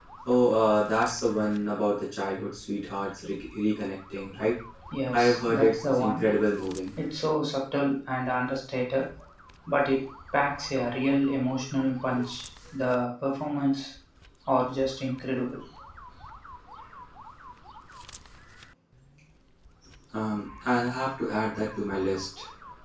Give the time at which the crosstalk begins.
5 s

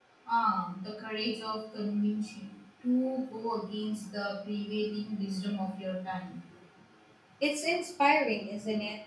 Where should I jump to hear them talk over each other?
none

